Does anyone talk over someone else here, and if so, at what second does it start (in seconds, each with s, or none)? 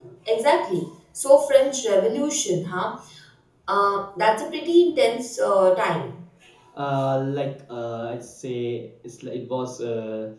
none